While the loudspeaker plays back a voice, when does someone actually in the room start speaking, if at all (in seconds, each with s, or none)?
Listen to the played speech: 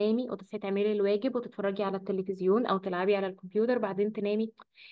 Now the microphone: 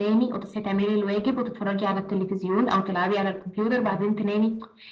none